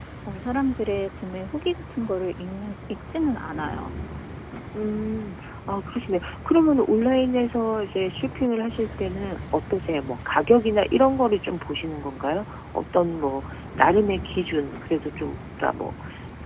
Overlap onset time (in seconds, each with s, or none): none